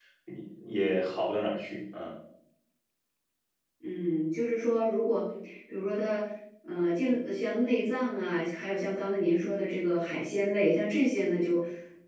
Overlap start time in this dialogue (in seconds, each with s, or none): none